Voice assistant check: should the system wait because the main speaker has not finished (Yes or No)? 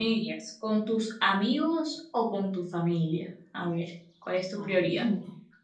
No